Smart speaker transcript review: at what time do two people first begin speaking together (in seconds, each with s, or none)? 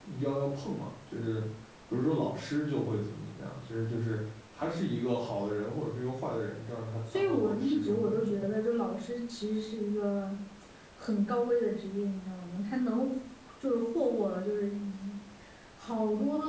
7.1 s